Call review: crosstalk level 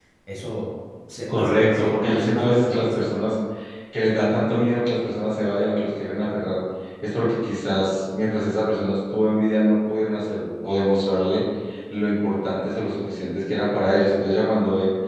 present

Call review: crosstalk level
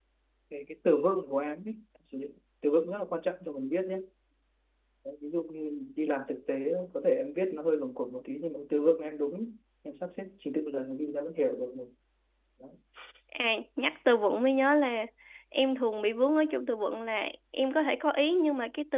none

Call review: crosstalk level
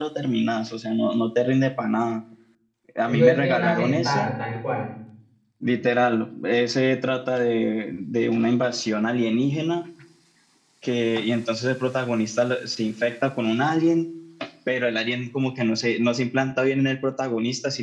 present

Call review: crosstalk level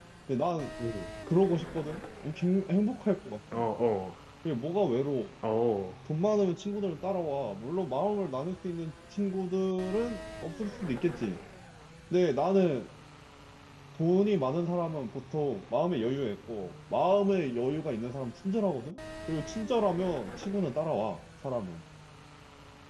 none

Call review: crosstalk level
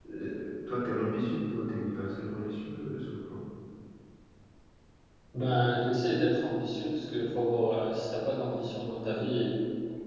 none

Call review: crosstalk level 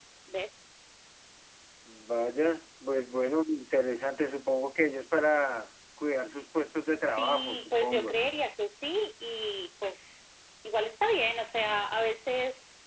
present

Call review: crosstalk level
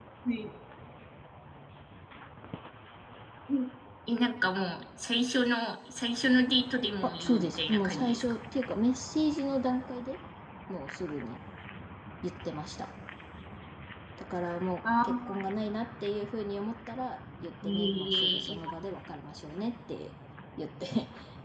present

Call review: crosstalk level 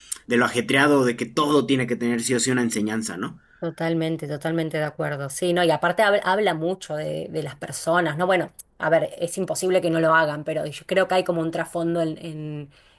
none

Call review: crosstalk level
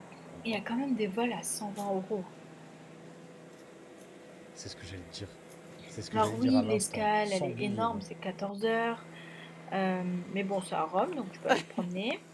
present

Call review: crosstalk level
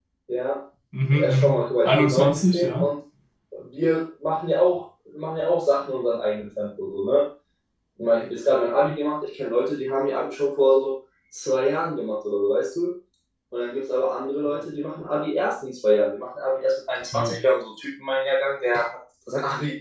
present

